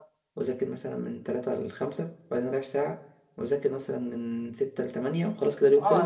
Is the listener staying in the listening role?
No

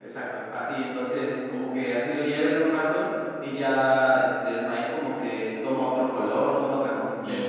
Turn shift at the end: Yes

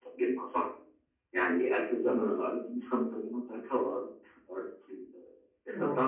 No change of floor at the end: Yes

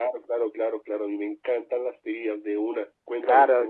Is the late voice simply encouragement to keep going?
No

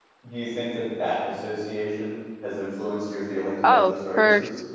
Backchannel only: No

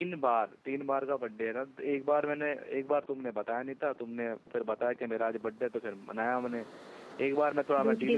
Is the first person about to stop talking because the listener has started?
No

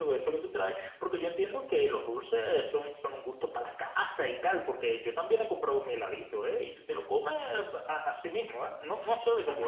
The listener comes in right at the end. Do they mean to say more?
Yes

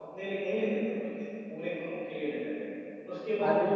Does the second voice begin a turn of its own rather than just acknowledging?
No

